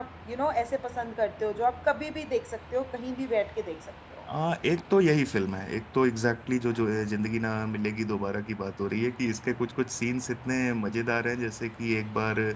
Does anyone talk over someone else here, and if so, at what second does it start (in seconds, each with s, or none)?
none